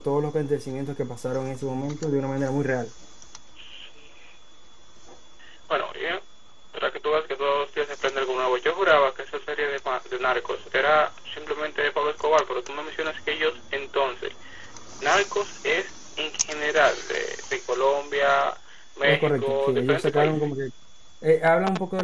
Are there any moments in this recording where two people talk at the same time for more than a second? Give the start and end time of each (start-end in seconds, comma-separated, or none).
19.0-20.5